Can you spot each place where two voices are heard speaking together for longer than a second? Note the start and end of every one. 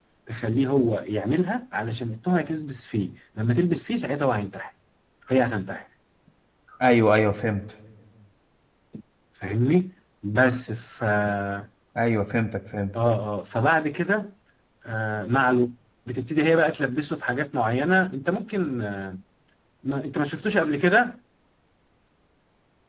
none

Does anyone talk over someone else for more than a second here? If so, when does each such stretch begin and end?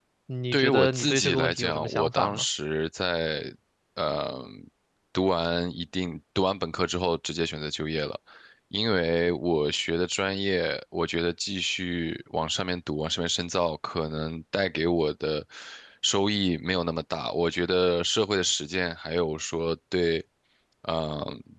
0.5-2.4

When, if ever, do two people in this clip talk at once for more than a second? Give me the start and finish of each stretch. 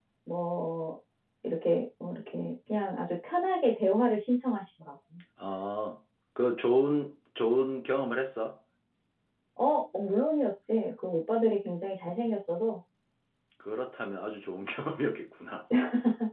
none

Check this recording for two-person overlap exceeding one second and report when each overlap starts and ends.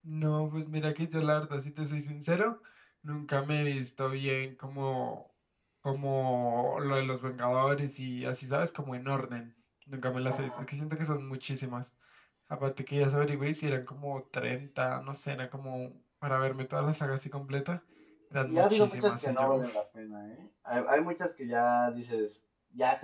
18.5-19.7

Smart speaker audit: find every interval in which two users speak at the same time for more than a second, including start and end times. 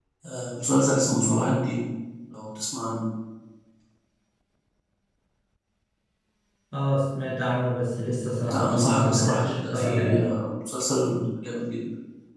8.4-10.3

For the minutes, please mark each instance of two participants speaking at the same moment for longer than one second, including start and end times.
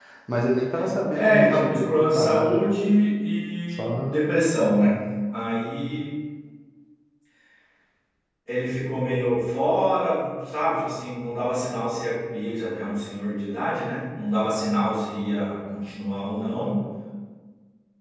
1.1-2.6

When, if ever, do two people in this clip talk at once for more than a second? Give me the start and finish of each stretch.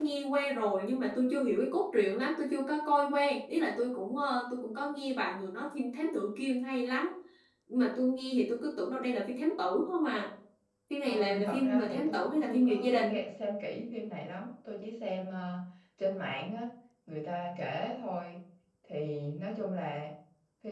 11.0-13.2

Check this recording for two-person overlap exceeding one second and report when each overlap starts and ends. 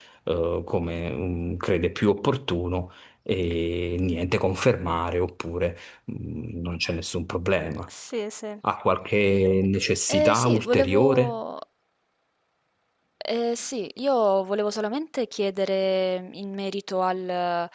10.1-11.4

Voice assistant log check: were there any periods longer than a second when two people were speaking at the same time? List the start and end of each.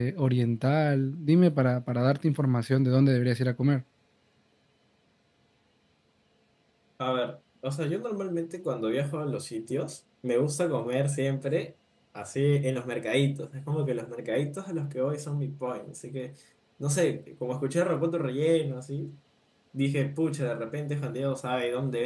none

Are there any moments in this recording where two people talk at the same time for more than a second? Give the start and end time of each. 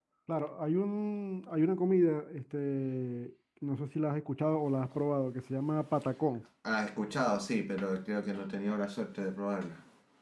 none

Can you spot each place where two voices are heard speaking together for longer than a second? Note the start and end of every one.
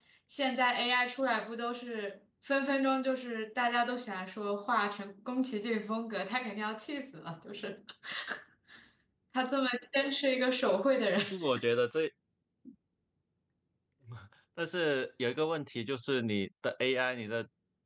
none

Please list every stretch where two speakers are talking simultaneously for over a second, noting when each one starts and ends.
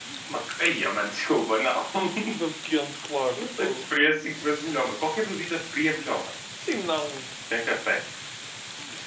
none

